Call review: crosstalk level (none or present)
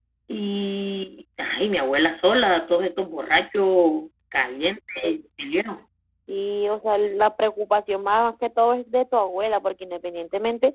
none